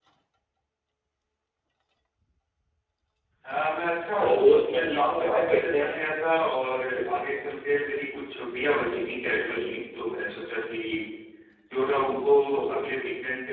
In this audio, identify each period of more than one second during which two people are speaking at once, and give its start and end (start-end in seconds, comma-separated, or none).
4.2-6.0